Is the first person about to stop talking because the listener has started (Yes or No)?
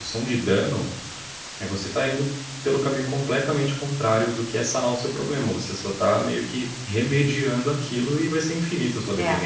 Yes